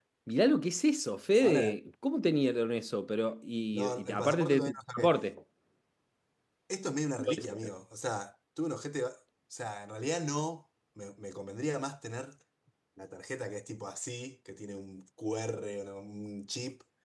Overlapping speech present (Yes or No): Yes